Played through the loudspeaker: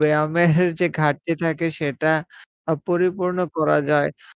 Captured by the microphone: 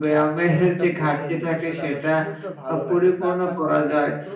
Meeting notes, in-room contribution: present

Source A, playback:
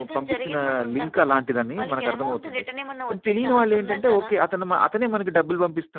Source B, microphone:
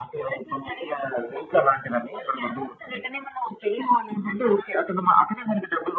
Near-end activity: none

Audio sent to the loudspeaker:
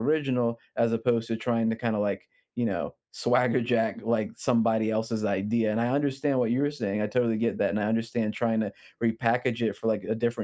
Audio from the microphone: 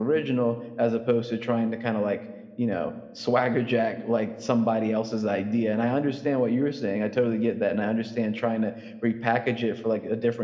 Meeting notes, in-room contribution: none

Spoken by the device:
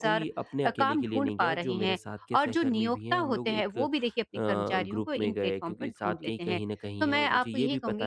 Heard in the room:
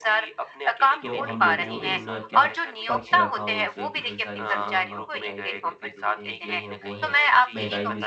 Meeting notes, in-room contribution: present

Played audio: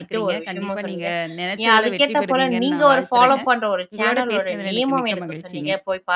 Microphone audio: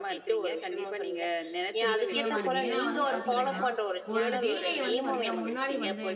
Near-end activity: present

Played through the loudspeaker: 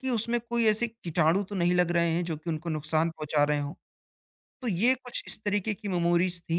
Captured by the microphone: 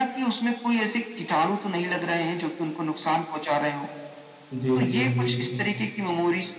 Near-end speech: present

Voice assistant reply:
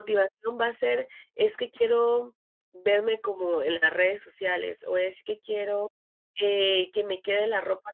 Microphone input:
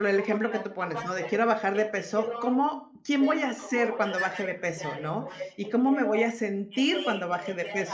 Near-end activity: present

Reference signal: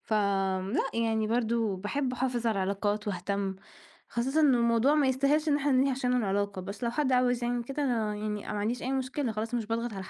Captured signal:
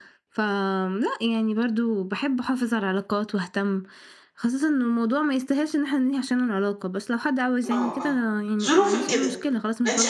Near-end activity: present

